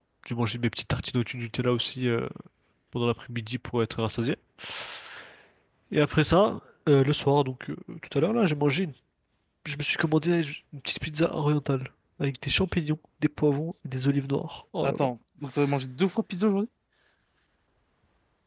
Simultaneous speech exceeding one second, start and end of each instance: none

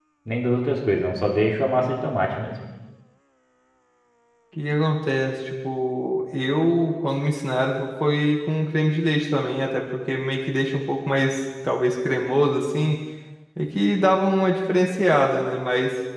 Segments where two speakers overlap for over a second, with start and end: none

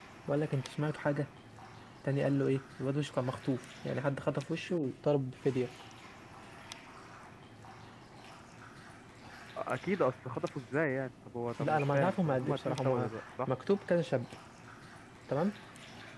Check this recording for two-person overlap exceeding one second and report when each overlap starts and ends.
11.6-13.1

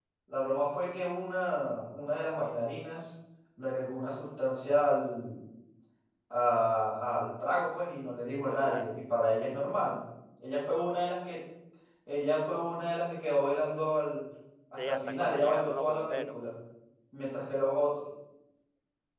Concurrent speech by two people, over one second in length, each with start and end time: 14.8-16.4

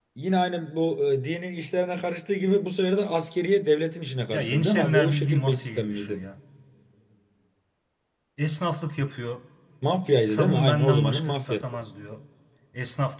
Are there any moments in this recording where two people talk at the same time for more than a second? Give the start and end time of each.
4.3-6.2, 10.2-11.8

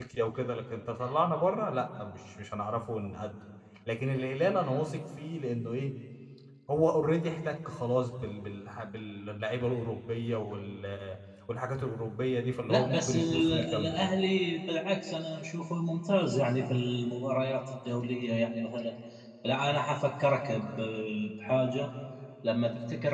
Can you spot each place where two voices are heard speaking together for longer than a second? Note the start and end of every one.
12.7-14.0

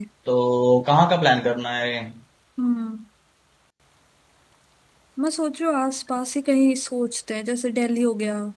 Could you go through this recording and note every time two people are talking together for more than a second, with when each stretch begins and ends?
none

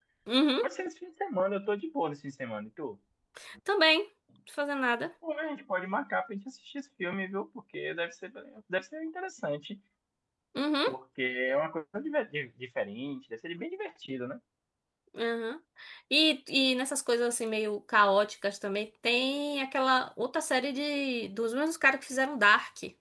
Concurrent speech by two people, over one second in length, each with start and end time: none

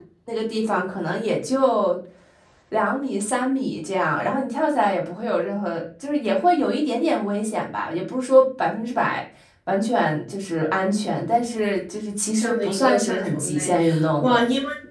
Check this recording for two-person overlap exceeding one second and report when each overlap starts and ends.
12.4-13.8

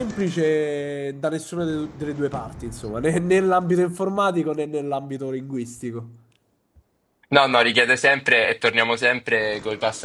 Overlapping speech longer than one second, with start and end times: none

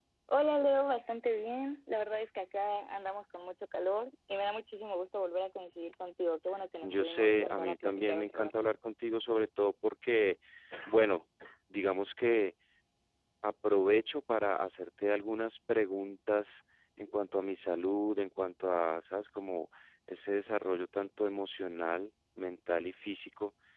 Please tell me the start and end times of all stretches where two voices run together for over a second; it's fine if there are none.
6.8-8.5

